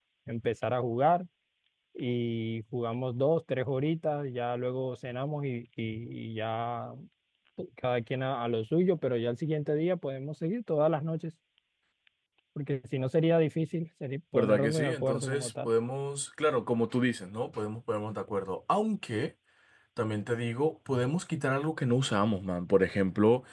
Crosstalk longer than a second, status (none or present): present